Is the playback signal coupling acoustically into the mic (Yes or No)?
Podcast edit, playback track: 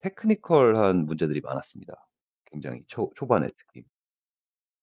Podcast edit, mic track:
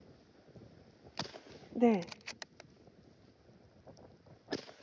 No